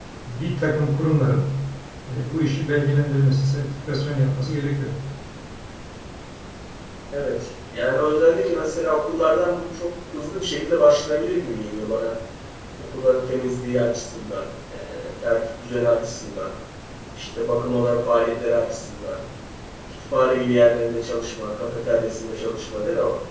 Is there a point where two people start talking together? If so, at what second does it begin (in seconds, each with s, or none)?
none